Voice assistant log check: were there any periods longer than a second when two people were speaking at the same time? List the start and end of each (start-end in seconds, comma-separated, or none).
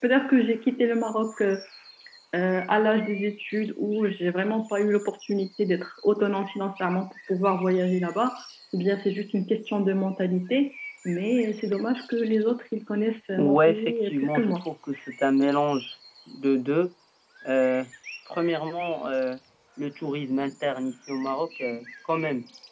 13.4-14.6